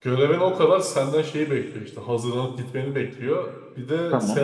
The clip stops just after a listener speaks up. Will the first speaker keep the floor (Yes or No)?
Yes